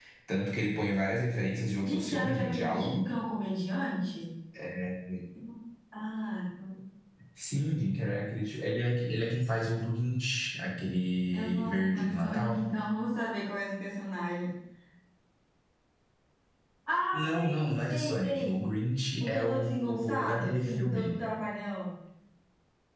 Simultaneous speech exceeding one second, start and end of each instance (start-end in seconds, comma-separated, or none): 1.8-3.1, 11.3-12.6, 17.1-18.6, 19.2-21.2